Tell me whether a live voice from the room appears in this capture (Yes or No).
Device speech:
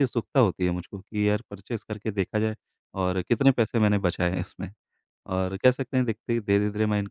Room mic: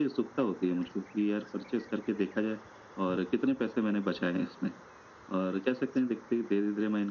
No